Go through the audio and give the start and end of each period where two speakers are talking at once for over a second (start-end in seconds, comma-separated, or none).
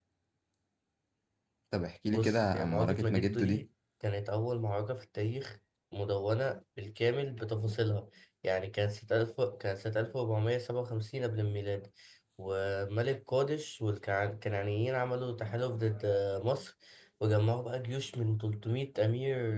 2.1-3.6